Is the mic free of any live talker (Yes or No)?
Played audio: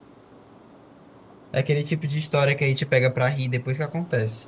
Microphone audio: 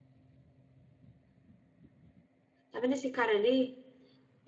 No